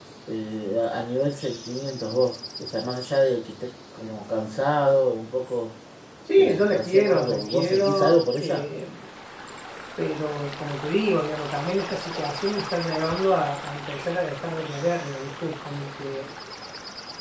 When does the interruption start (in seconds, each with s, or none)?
6.4 s